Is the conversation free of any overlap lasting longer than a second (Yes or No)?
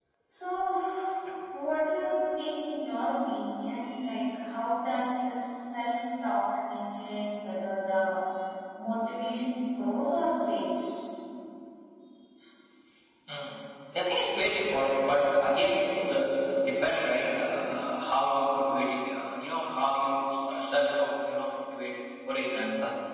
Yes